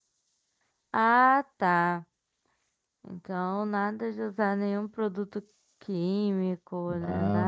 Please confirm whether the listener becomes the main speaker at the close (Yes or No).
Yes